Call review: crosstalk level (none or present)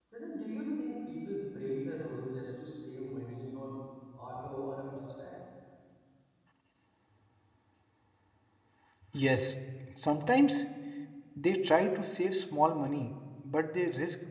none